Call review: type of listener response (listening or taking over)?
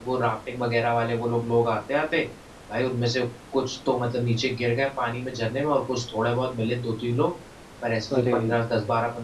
listening